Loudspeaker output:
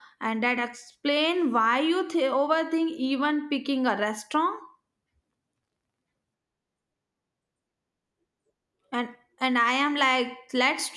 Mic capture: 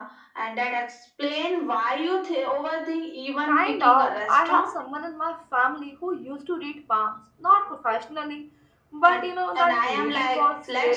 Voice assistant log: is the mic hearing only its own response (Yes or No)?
No